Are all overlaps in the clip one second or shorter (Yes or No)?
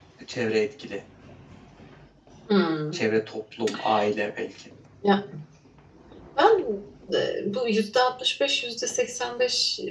Yes